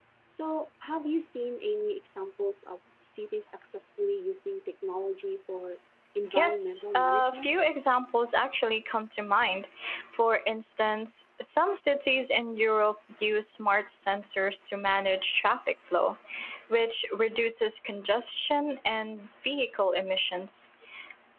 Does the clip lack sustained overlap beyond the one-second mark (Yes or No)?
No